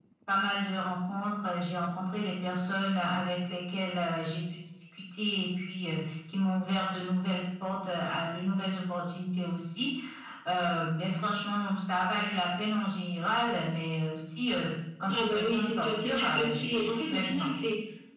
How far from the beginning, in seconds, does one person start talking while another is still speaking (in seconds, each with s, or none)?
15.1 s